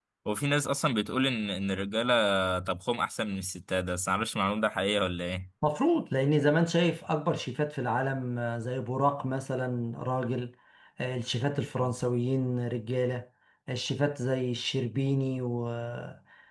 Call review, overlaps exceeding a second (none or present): none